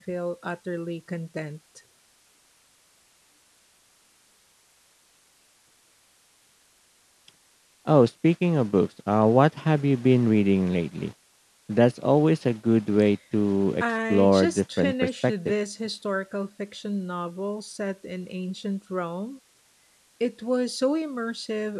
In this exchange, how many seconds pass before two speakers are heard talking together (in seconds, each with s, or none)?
14.1 s